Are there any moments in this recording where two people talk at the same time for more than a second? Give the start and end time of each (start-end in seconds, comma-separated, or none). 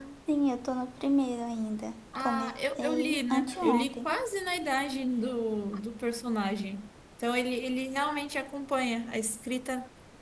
2.2-4.1